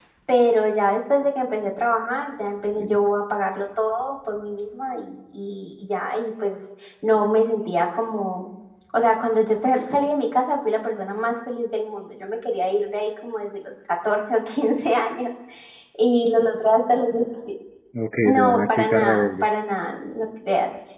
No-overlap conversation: No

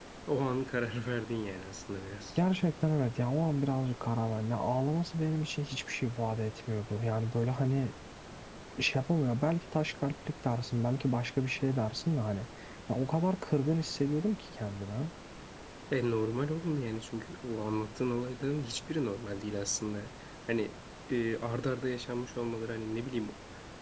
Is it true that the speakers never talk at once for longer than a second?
Yes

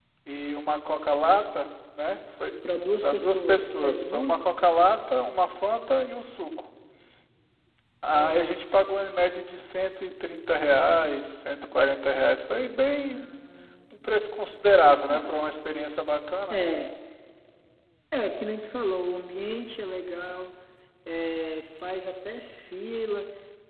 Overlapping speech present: Yes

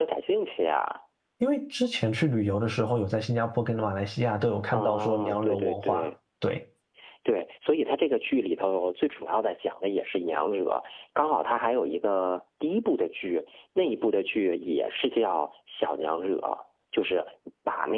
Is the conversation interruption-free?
No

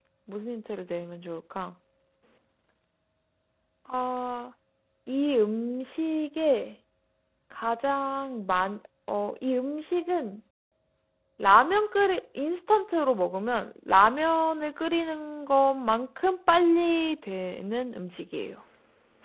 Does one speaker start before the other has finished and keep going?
No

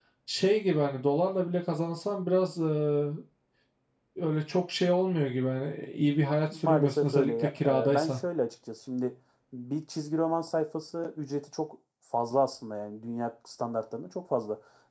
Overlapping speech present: Yes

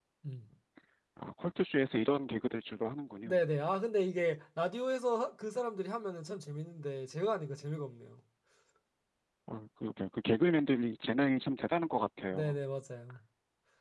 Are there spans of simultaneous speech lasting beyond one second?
No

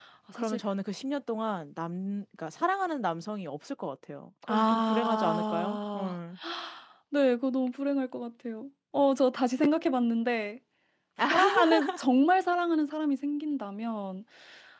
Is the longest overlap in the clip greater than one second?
Yes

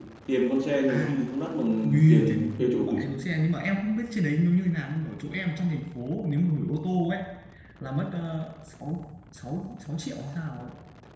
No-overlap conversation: No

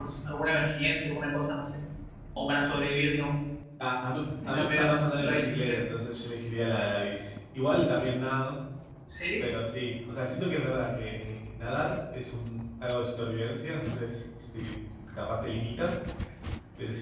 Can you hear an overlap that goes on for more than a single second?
Yes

